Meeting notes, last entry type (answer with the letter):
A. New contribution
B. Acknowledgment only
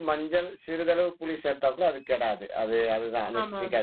B